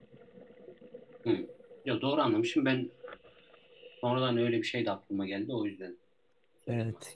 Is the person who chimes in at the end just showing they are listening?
No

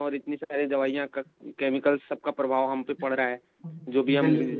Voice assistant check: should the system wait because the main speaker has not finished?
Yes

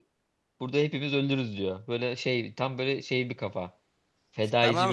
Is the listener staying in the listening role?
No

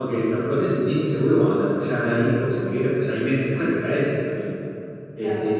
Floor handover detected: No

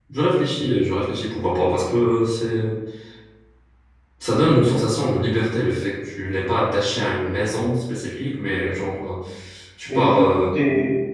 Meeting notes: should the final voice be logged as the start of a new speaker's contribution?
Yes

